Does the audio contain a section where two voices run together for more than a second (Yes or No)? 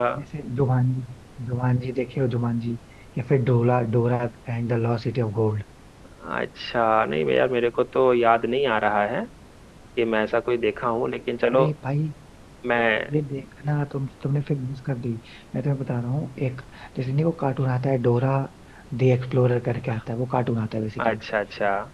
No